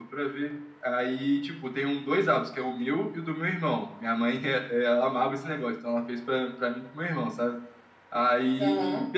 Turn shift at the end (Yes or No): No